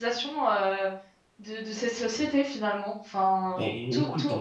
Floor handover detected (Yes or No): Yes